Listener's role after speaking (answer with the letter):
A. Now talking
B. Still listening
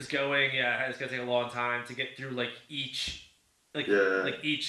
B